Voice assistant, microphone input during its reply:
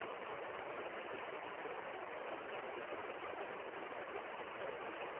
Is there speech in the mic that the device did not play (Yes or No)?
No